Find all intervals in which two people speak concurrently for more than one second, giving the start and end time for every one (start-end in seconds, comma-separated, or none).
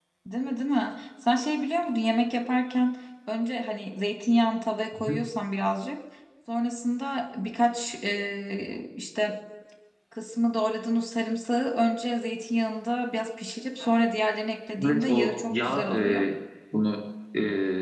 14.8-16.3